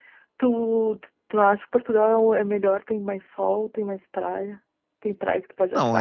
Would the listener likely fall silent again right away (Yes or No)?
No